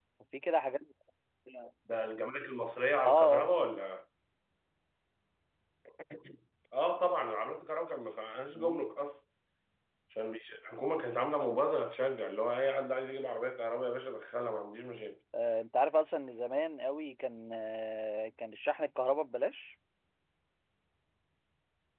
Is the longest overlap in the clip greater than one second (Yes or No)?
No